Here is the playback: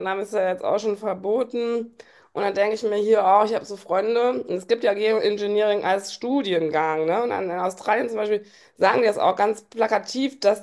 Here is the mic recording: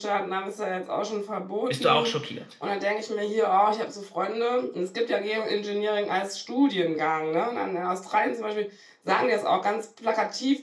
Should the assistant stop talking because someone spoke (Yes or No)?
Yes